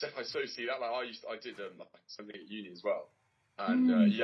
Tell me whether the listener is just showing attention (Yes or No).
Yes